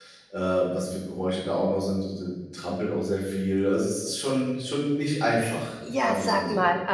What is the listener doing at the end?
taking over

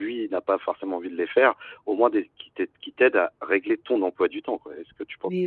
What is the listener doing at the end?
taking over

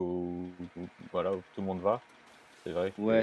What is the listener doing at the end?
taking over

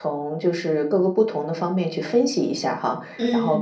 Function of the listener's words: listening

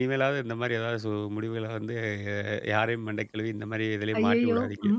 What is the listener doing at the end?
taking over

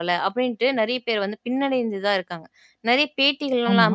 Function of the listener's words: listening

